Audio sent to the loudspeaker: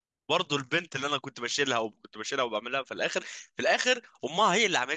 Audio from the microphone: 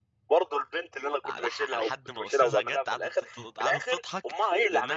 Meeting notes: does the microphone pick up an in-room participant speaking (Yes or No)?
Yes